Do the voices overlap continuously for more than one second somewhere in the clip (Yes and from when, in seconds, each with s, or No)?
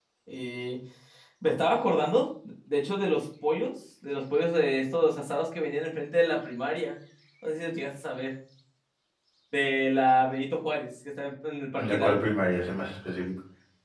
No